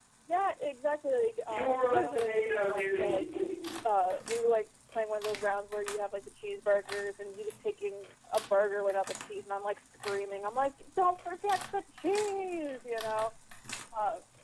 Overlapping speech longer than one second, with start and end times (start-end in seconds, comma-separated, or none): 1.4-3.2